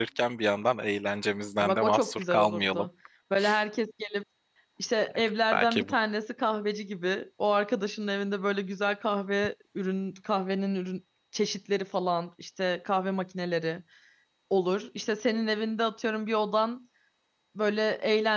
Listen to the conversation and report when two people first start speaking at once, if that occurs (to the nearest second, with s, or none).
2 s